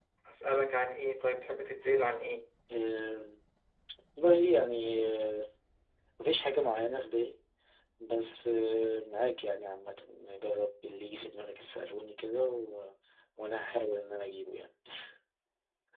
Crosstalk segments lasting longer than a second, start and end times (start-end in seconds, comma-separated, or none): none